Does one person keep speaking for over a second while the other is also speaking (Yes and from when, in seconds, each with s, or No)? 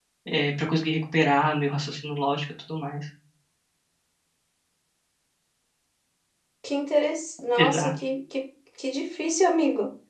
No